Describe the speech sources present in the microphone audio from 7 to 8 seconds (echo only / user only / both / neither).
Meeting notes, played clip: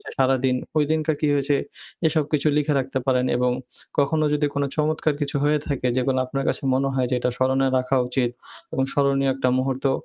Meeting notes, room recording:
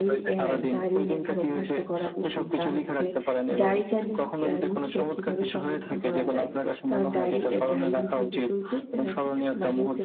both